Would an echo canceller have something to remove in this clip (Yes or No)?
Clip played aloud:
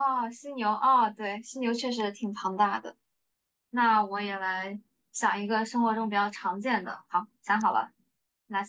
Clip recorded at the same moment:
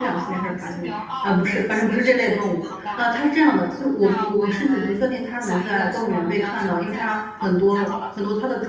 Yes